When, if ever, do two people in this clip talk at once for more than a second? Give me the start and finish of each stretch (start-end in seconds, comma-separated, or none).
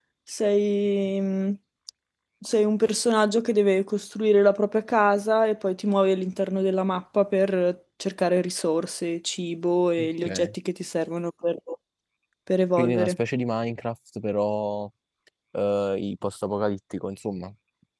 none